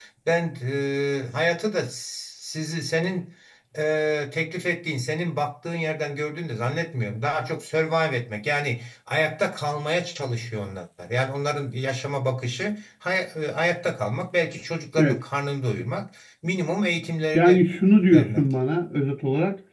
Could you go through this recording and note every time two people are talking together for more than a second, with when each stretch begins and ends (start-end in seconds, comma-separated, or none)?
none